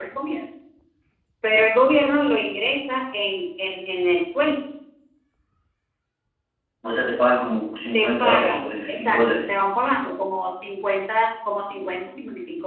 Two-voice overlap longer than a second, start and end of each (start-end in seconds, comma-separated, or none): 7.9-9.5